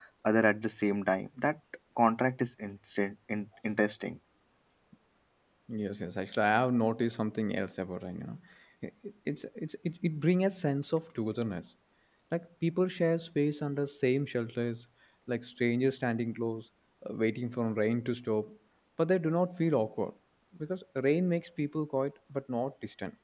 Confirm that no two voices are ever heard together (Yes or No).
Yes